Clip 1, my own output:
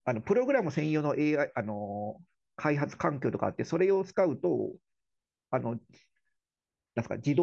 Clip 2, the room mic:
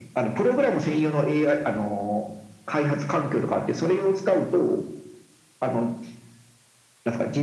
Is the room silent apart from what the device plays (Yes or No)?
Yes